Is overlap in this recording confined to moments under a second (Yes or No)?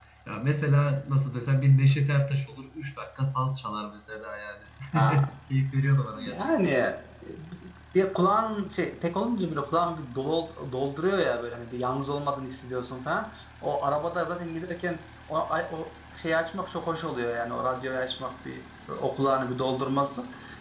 Yes